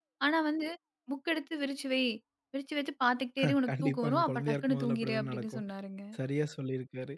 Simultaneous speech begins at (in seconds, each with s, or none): 3.7 s